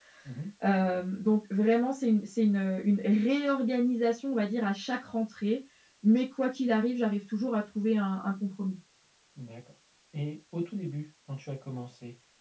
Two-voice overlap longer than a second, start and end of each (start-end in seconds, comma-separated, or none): none